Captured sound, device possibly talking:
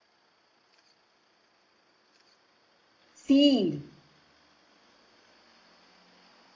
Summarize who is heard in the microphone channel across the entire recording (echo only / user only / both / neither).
user only